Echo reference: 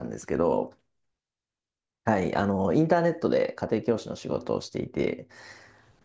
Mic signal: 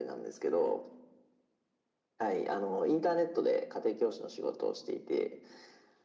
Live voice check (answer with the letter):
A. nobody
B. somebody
A